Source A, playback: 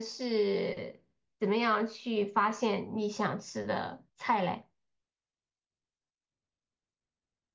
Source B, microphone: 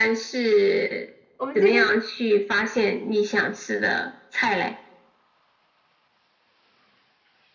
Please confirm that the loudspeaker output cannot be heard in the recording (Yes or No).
No